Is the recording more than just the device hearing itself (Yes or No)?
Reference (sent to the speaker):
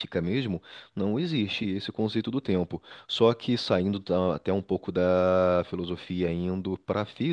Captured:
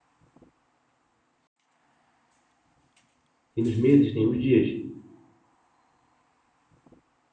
Yes